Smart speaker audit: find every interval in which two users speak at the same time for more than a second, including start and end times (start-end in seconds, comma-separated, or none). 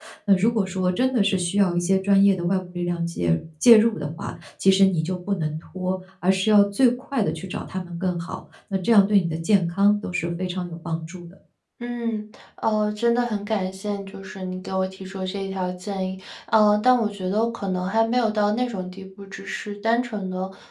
none